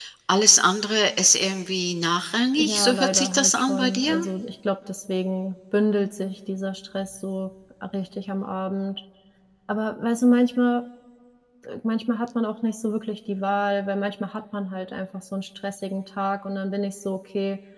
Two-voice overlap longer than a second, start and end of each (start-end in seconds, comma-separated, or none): 2.6-4.3